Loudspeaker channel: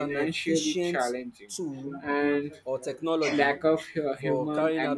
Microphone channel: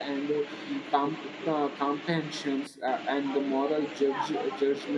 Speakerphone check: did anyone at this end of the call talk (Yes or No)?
Yes